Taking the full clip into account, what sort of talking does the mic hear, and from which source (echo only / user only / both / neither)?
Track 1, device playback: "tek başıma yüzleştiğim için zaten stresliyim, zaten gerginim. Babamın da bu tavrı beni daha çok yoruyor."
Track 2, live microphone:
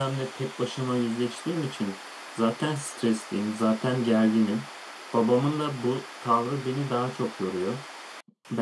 echo only